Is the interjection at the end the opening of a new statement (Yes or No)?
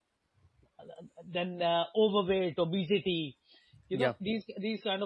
No